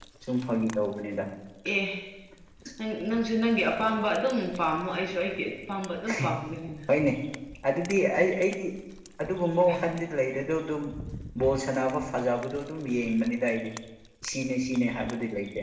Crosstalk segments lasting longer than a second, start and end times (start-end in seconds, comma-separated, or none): none